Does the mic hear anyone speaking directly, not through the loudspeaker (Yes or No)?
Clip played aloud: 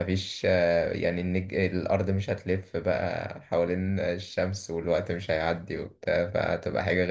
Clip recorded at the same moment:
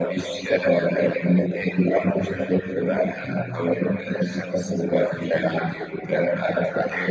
Yes